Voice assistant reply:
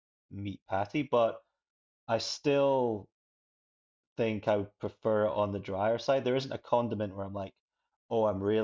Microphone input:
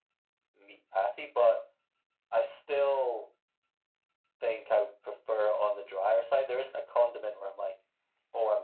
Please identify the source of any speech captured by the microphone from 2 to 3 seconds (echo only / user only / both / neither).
echo only